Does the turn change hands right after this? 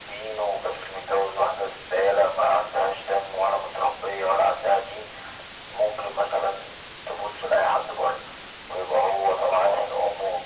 No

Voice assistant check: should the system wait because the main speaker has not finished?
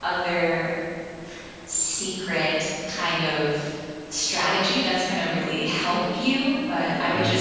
Yes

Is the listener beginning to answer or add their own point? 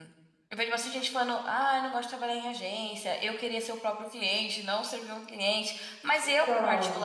No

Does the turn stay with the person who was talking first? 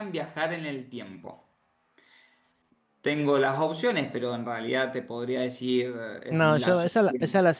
No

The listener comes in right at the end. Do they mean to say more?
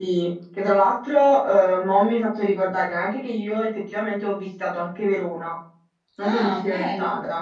Yes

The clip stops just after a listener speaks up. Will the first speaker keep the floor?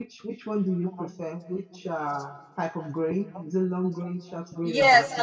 No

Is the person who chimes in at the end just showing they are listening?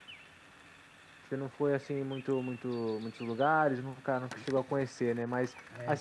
Yes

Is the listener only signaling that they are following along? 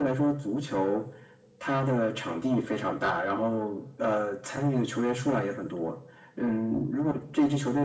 Yes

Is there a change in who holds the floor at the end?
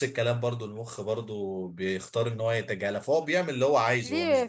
Yes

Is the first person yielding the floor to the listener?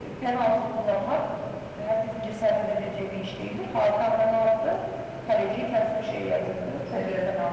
Yes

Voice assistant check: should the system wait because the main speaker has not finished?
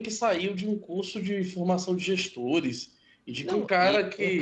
No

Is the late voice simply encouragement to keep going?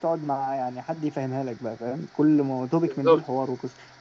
Yes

